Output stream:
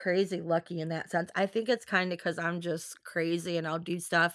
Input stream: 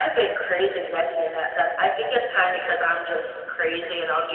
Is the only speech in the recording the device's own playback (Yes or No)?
Yes